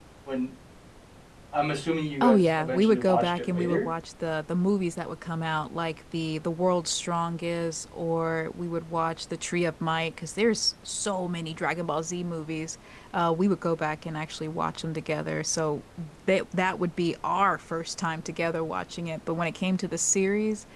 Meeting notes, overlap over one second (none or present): present